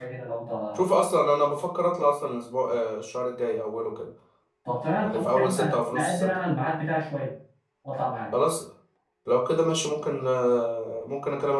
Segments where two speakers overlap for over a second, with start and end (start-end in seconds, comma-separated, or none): 5.0-6.3